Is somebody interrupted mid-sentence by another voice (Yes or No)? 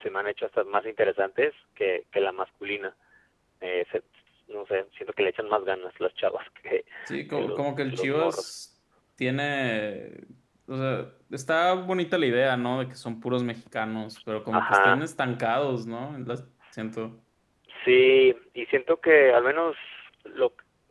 Yes